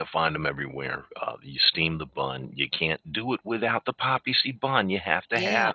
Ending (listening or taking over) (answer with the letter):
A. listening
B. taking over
B